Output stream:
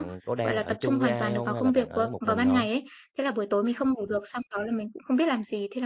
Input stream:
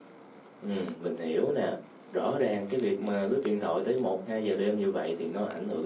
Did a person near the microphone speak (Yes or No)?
Yes